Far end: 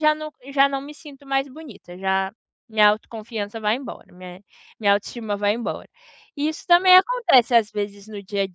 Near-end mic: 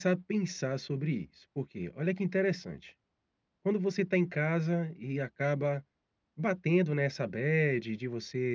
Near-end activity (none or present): present